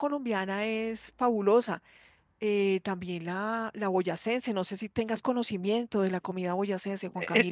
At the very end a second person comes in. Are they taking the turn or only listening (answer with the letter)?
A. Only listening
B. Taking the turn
B